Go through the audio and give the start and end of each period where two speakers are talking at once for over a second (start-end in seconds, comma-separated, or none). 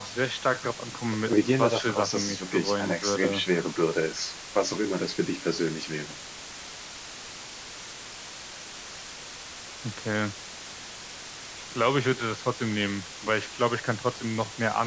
1.3-3.4